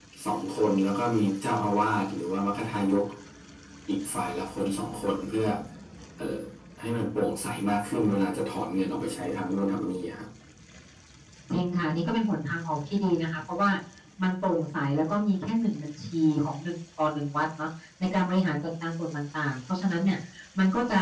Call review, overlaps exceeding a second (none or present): none